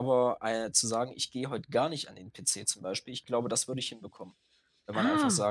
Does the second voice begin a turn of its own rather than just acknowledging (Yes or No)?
No